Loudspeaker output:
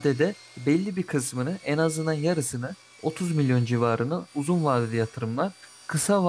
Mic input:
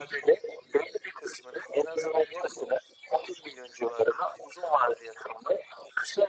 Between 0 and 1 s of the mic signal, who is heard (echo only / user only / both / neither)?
echo only